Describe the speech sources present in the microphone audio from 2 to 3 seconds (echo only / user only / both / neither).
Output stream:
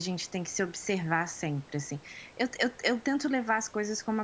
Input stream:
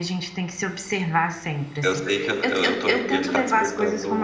both